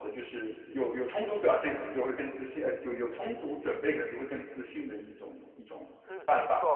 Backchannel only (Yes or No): No